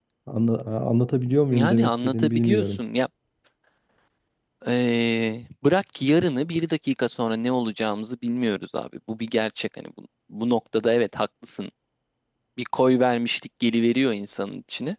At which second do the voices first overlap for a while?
1.5 s

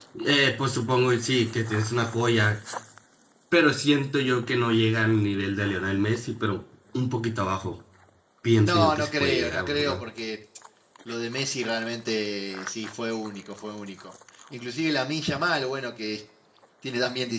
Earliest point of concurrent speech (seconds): 8.6 s

